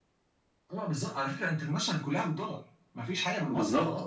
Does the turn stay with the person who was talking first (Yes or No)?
No